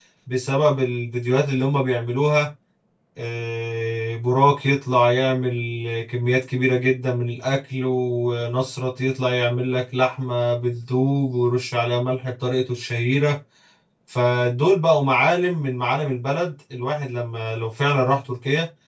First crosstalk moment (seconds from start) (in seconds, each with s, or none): none